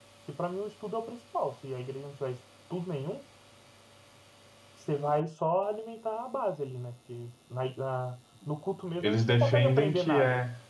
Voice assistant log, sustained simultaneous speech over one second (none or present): present